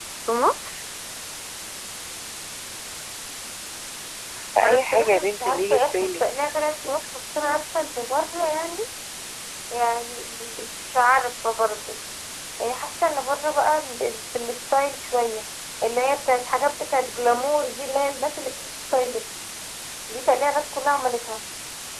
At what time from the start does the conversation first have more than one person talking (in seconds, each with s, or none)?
4.6 s